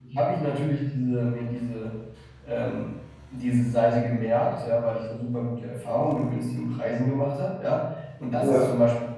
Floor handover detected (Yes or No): No